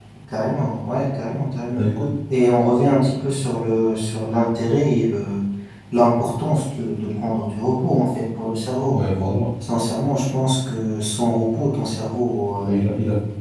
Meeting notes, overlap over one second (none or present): none